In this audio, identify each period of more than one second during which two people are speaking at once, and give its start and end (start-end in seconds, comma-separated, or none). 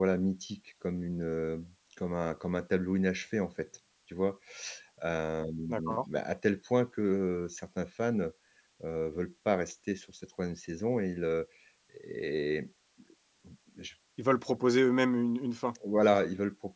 none